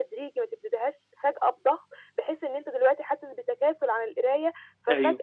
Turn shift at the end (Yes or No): No